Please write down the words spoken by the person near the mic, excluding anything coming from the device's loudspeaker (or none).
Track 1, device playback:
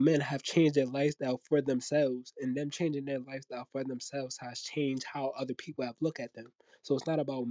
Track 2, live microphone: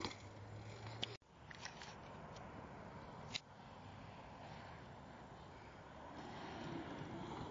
none